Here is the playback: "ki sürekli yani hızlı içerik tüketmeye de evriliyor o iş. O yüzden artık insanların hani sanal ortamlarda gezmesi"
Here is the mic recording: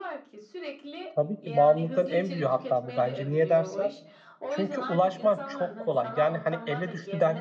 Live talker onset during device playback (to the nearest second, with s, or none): 1 s